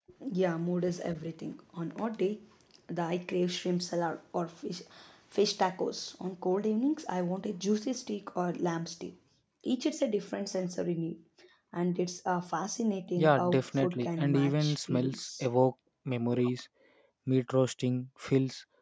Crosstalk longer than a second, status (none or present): present